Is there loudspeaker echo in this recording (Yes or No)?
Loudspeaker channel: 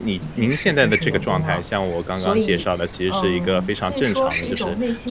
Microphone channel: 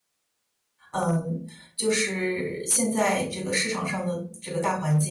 No